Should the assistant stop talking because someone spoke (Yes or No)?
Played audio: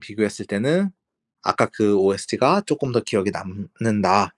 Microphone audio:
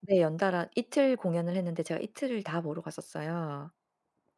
Yes